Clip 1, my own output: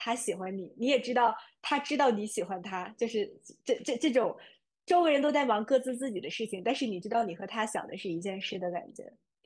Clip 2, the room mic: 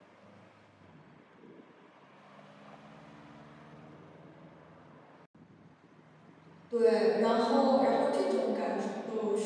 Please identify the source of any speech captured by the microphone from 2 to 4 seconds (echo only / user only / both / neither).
neither